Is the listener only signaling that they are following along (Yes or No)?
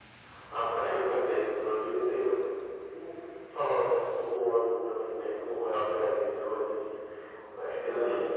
Yes